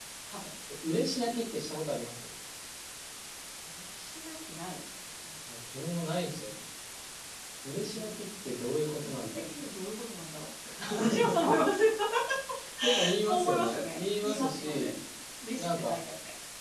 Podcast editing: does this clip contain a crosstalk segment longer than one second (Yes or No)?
Yes